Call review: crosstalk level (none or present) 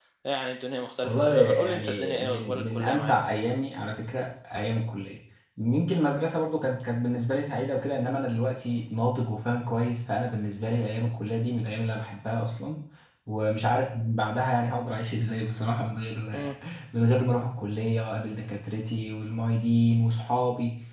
present